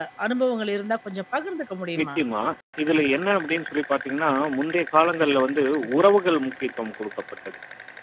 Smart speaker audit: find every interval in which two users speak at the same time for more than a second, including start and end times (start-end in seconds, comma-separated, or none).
none